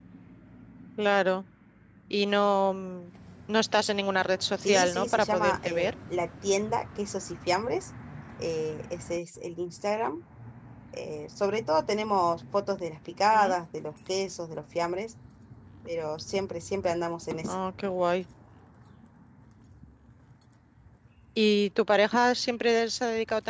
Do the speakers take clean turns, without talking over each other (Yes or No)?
No